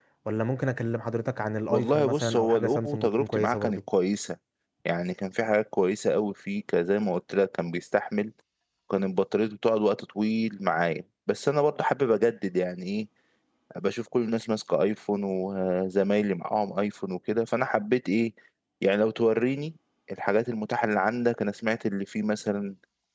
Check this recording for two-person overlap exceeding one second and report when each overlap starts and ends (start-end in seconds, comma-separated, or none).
1.7-3.8